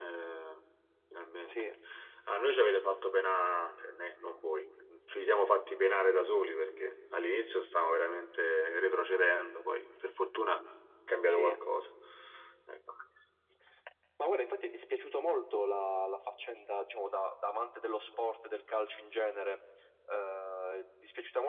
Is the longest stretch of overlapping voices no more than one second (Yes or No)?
Yes